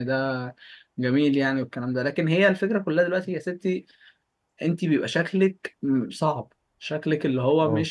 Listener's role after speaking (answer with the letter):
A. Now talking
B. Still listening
B